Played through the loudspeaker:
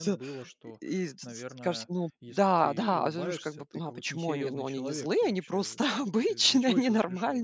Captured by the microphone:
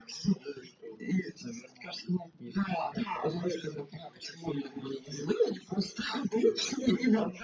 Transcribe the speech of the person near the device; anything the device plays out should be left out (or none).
none